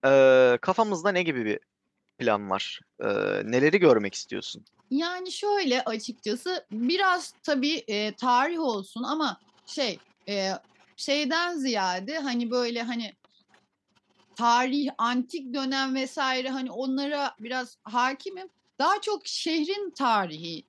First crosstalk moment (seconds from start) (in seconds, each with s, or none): none